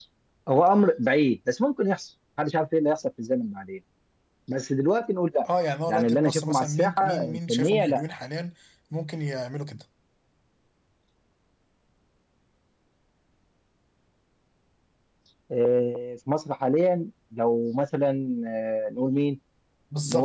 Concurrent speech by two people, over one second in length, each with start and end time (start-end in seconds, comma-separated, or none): 5.9-8.0